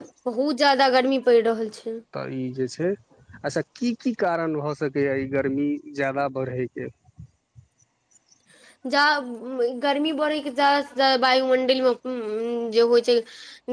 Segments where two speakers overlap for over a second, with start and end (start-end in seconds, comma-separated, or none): none